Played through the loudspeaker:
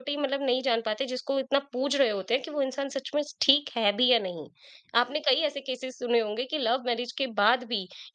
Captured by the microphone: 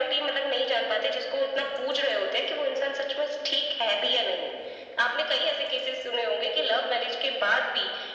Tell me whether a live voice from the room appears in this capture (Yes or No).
No